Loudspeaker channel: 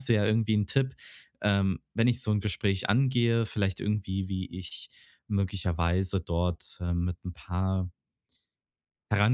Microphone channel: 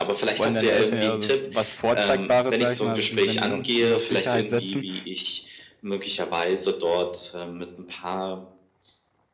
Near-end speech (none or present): present